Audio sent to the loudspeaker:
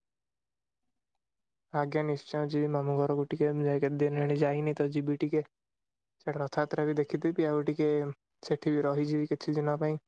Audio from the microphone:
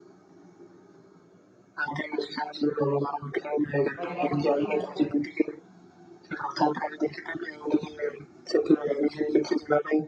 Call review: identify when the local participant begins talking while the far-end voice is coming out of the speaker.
4 s

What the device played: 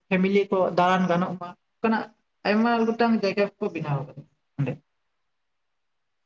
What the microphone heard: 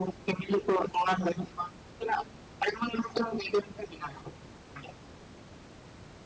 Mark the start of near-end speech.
none

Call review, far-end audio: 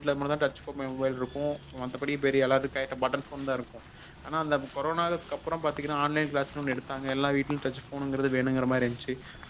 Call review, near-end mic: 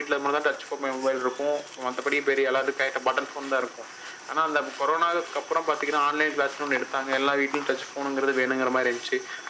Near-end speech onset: none

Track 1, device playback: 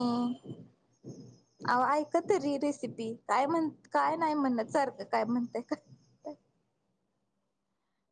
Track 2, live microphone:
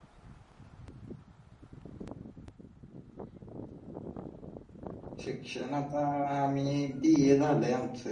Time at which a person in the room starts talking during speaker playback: 5 s

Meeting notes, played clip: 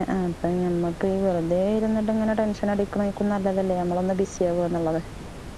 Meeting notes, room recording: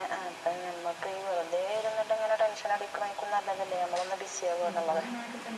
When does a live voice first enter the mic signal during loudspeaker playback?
5 s

